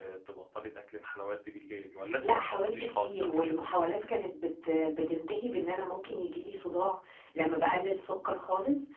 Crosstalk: present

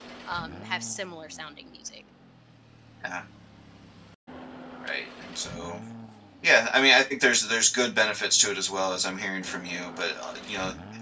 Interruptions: none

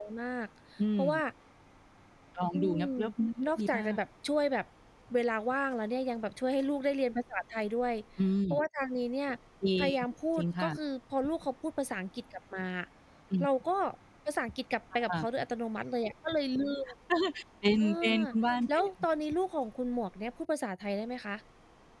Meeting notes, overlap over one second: none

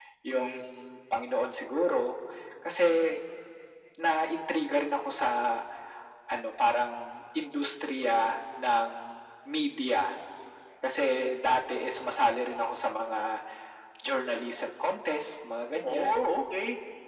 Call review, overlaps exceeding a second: none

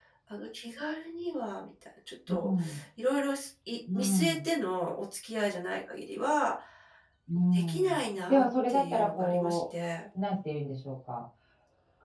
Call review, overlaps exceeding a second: present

